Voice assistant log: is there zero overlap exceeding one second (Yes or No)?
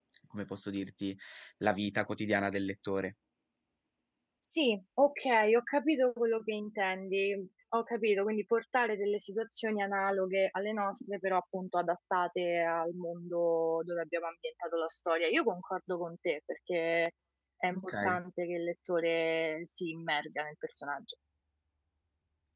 Yes